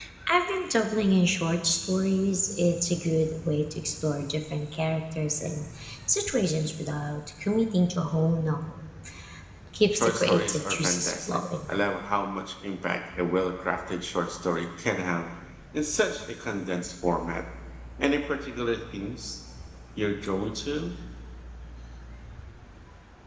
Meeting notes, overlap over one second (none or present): present